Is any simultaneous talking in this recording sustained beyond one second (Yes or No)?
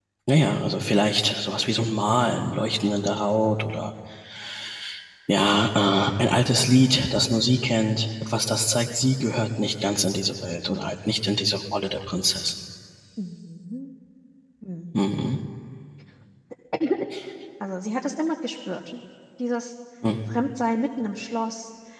No